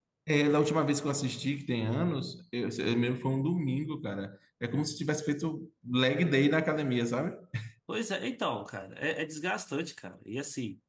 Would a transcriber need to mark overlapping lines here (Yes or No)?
No